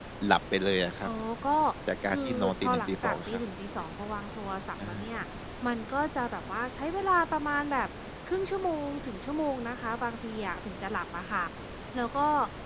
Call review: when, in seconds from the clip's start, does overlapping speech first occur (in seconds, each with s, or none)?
2.1 s